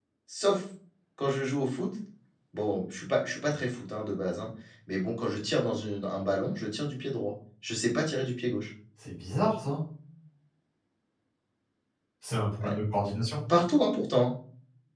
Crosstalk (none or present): none